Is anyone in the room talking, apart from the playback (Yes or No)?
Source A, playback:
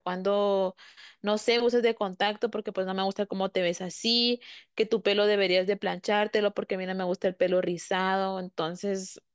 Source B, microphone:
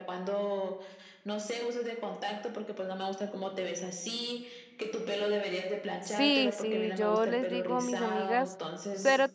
Yes